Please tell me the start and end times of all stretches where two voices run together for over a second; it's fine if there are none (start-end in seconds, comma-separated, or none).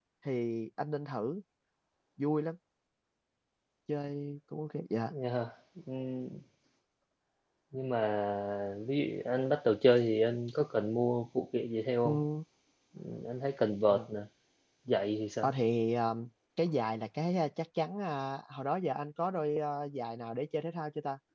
none